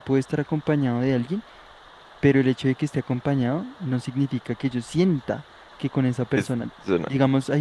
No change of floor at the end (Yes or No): Yes